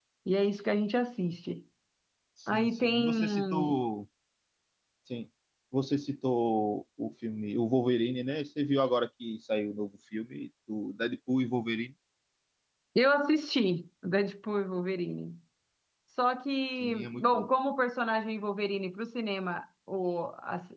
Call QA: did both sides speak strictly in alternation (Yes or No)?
No